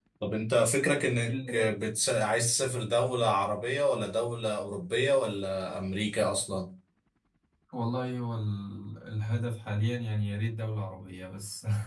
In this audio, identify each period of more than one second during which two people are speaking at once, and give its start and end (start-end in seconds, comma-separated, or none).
none